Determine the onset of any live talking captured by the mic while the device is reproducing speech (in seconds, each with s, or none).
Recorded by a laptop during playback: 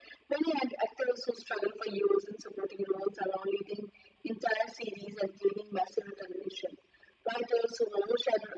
none